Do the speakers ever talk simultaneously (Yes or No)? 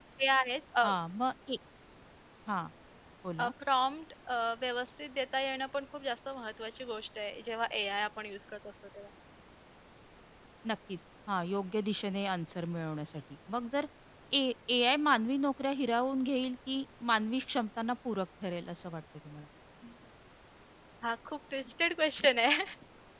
No